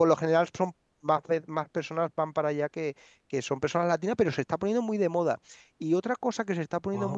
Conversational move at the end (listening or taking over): listening